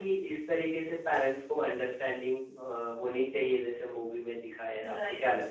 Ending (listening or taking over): taking over